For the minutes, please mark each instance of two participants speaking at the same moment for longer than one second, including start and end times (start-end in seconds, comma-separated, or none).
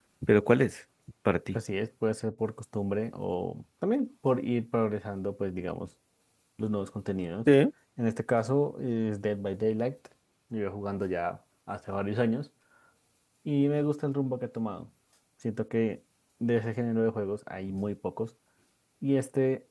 none